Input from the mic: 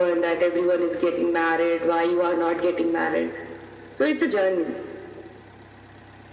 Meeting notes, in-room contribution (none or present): none